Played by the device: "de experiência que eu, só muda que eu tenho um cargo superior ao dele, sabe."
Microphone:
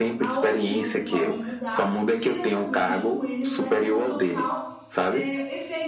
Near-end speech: present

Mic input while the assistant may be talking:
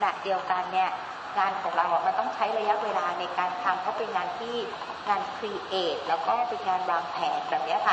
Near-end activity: none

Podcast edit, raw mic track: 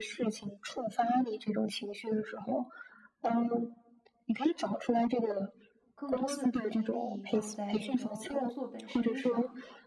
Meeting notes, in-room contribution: present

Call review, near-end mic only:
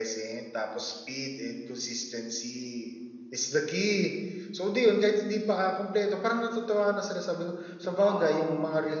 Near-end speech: present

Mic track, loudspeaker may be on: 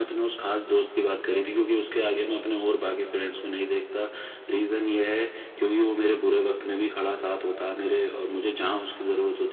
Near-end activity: none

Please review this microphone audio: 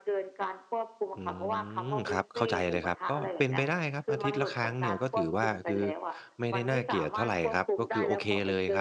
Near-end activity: present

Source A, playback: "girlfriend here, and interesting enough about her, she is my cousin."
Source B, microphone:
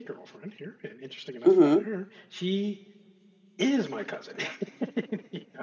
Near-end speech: present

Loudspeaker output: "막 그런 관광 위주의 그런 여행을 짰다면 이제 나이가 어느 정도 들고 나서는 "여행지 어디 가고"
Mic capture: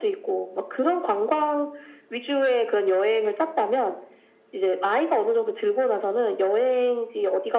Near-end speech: none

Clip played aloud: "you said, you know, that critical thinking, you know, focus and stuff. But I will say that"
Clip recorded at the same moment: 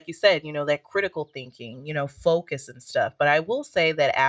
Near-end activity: none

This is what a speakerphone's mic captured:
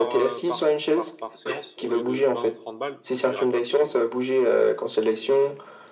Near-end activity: present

